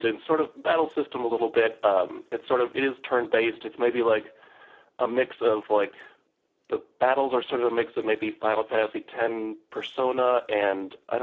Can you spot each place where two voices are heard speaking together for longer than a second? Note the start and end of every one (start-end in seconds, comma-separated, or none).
none